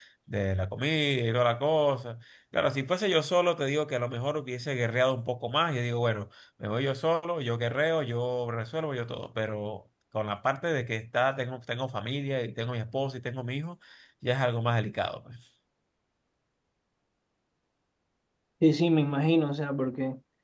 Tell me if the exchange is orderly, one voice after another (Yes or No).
Yes